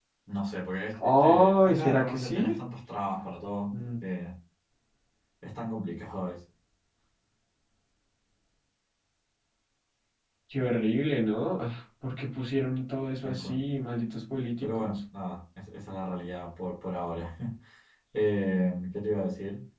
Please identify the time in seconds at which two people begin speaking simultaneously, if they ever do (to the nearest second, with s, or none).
1 s